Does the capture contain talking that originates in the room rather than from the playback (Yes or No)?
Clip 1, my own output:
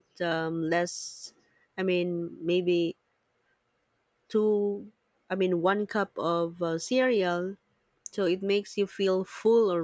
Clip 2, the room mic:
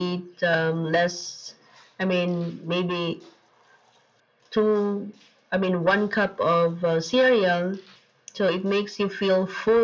No